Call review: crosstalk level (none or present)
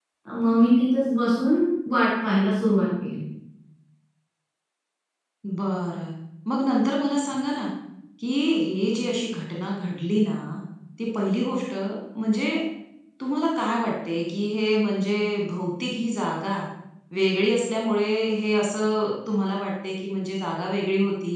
none